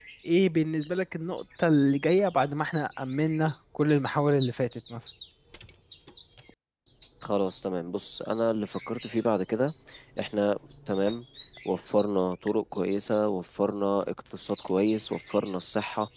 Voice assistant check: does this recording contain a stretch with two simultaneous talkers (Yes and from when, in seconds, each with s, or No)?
No